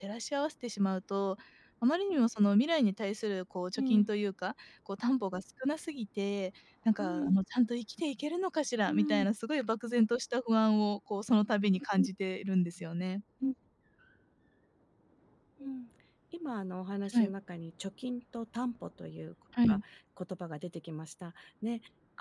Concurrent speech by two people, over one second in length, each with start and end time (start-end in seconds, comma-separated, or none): none